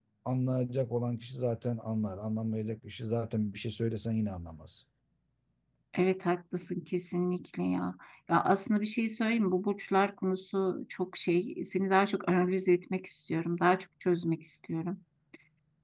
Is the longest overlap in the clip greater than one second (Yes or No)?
No